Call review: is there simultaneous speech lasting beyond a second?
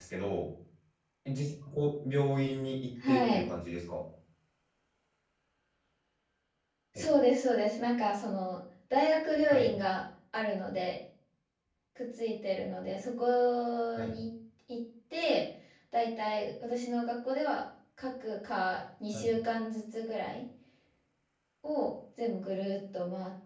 No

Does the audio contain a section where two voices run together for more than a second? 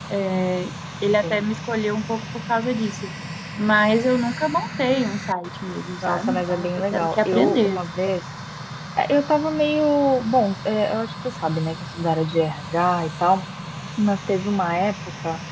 Yes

